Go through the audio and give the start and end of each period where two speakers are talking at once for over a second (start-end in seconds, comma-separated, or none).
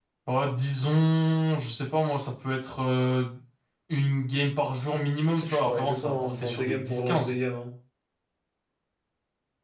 5.4-7.3